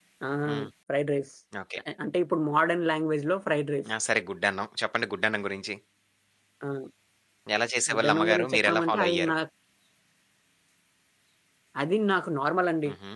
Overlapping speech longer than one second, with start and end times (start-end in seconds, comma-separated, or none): 7.9-9.3